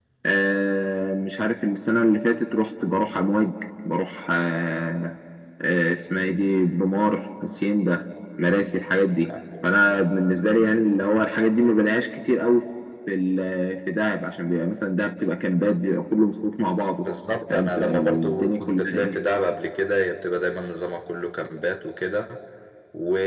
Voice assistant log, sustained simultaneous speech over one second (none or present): present